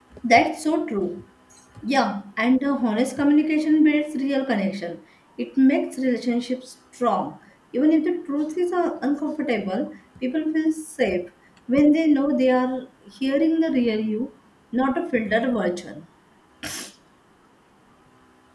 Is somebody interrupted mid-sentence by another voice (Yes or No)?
No